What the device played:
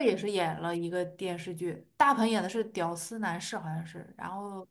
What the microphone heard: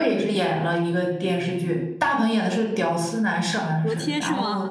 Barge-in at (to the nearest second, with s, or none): 4 s